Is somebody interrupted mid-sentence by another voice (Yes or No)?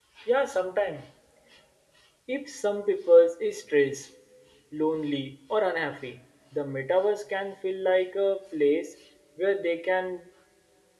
No